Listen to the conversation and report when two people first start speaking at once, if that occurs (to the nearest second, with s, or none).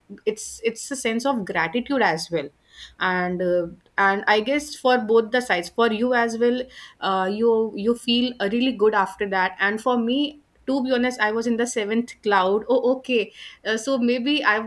none